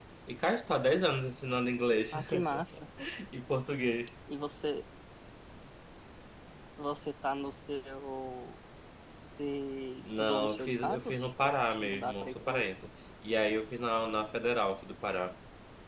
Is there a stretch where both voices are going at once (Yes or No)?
Yes